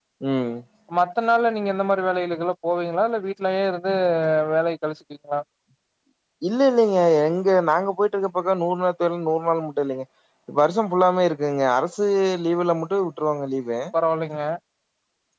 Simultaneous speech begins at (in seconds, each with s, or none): none